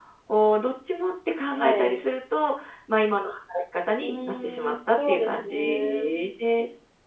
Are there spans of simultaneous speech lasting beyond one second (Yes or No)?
Yes